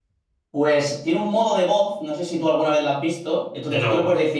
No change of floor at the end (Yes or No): Yes